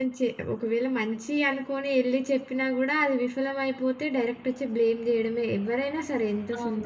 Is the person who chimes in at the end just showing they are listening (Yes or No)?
No